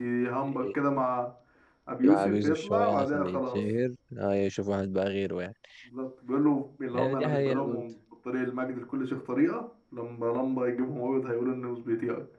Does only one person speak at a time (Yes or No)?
No